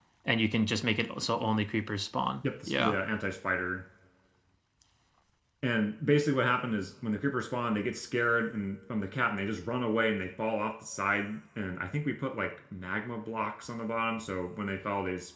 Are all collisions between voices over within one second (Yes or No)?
Yes